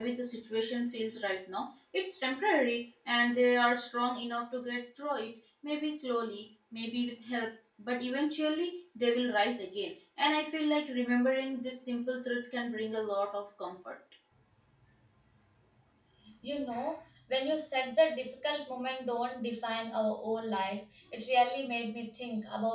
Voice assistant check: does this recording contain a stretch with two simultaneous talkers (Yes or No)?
No